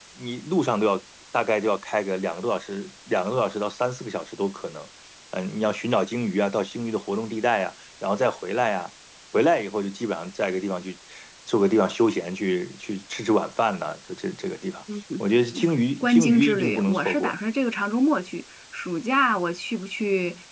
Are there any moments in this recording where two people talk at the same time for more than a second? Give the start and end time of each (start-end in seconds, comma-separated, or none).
16.0-17.3